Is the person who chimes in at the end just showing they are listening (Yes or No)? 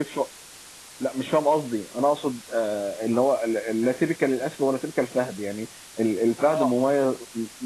Yes